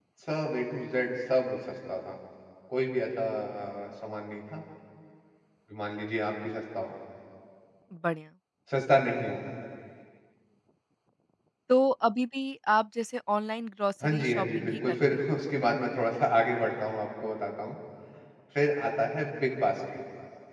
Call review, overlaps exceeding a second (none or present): present